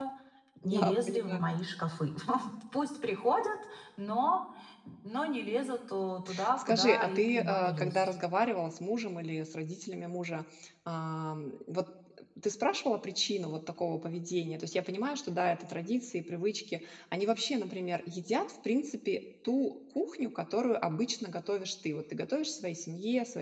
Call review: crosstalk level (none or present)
present